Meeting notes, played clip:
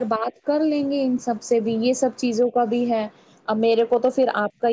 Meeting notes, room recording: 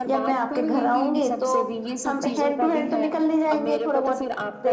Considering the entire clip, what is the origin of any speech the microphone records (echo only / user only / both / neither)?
both